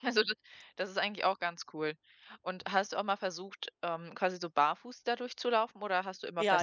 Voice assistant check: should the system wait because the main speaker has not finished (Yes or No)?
No